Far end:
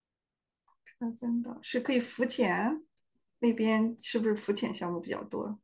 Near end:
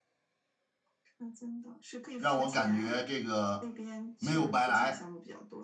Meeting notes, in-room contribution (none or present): present